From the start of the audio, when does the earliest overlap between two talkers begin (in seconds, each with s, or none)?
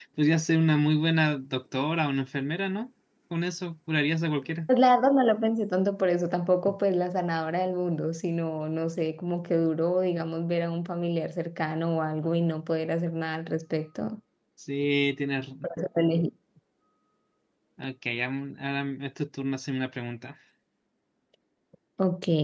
none